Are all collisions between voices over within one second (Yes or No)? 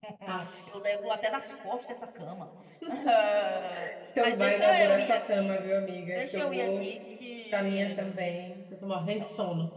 No